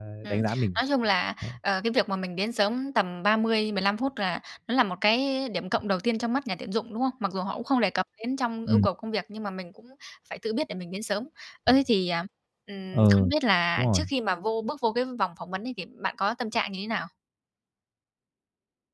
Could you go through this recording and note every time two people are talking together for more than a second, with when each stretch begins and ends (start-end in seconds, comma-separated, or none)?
none